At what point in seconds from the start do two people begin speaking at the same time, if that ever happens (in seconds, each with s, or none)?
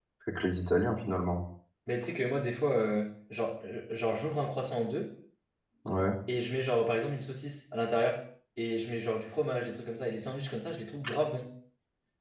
none